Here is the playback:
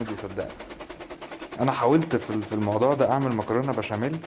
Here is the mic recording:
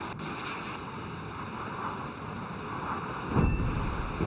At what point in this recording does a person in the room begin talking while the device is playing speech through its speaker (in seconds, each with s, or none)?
none